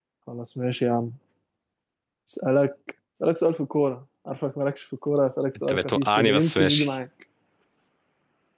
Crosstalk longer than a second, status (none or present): present